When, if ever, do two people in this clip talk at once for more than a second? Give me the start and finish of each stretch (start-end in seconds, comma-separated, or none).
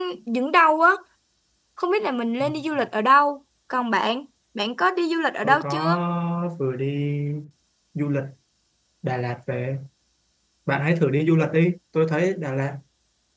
none